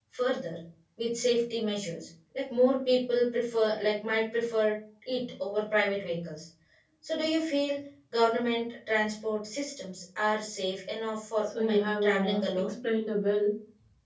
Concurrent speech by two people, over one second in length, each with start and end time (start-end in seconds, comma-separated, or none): 11.4-12.7